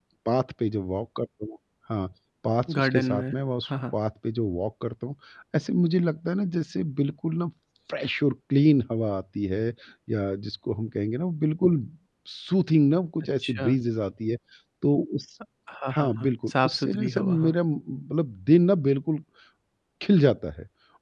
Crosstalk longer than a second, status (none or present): present